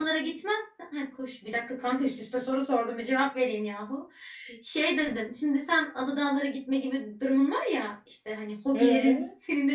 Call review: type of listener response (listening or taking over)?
listening